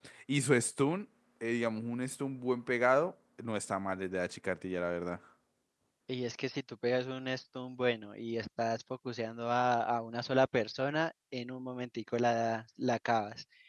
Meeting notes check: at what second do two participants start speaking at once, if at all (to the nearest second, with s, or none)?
none